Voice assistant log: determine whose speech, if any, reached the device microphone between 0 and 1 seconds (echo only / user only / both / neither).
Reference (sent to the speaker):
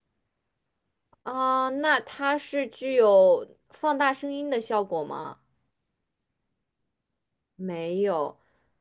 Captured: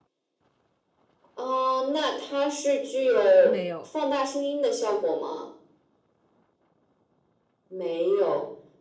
neither